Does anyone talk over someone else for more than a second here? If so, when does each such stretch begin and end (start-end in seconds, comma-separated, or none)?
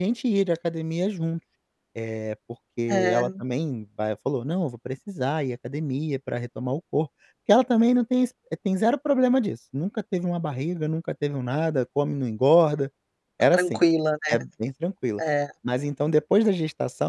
none